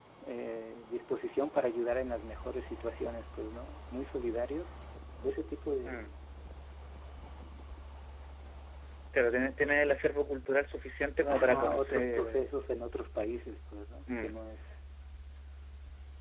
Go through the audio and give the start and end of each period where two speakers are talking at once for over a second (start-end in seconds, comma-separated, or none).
11.2-12.4